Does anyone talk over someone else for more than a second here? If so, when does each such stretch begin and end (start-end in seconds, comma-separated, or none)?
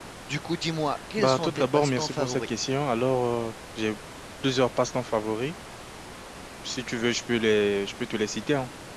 1.2-2.4